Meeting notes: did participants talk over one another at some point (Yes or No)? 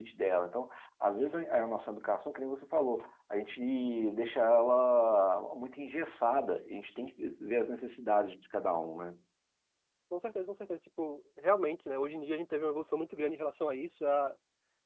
No